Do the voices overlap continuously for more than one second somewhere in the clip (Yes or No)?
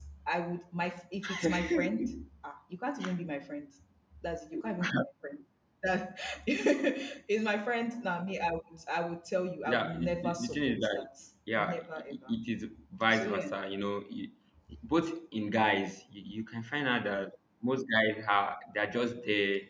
Yes